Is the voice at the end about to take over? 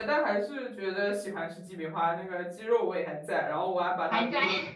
No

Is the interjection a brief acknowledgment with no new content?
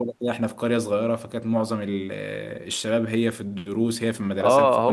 No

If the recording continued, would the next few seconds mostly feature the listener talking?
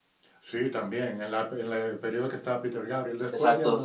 Yes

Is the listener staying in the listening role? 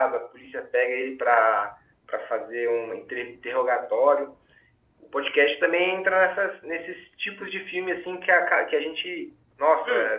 Yes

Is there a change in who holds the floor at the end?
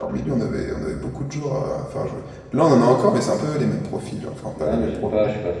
Yes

